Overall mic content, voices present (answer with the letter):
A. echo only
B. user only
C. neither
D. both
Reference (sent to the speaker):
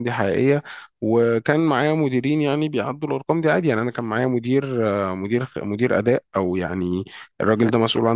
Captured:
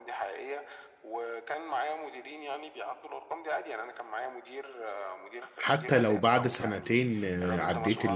D